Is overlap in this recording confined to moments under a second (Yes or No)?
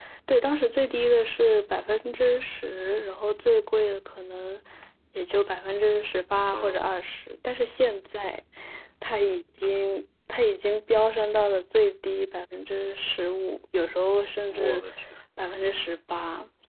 Yes